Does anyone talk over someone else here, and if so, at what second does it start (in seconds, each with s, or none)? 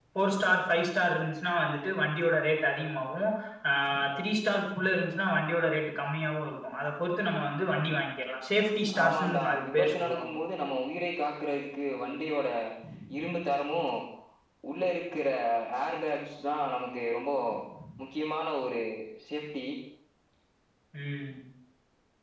8.9 s